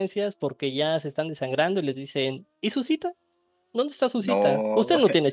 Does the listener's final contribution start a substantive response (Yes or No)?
No